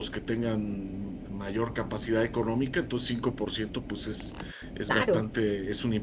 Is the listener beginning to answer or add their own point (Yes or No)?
No